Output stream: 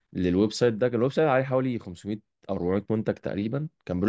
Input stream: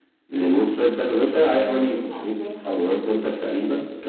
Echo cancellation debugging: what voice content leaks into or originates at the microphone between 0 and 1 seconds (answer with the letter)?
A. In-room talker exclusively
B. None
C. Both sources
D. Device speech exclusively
D